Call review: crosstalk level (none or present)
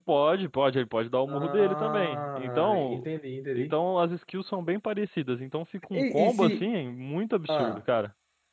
present